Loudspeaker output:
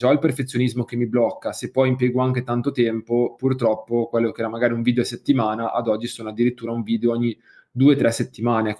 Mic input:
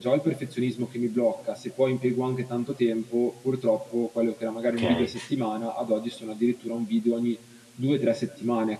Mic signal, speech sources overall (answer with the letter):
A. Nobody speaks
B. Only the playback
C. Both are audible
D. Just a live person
C